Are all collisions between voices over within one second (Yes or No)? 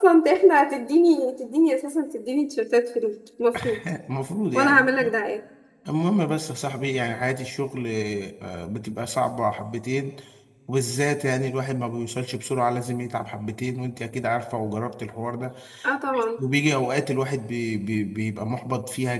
Yes